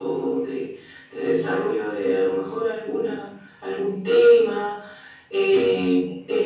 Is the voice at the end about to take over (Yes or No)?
No